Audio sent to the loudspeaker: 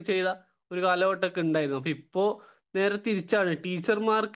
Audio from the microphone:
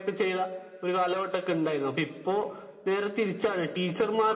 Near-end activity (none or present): none